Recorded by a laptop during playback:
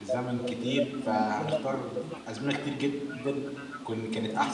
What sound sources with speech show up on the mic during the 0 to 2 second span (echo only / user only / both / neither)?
both